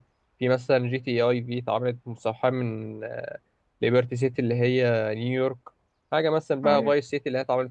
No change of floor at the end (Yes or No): Yes